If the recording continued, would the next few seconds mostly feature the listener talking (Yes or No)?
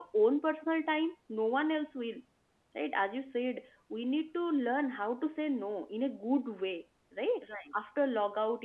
No